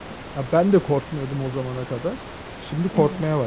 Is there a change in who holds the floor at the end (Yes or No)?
Yes